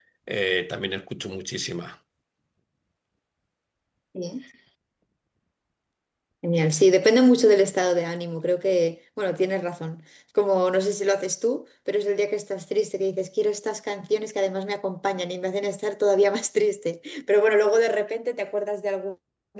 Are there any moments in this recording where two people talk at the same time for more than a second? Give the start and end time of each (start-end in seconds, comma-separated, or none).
none